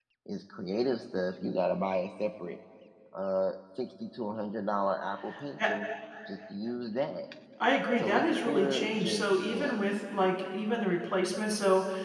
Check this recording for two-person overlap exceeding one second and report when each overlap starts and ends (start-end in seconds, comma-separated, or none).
8.0-9.8